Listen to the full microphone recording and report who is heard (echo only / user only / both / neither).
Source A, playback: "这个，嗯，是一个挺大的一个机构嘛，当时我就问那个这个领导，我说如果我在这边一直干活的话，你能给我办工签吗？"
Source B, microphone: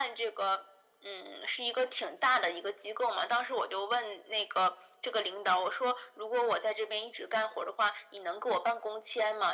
echo only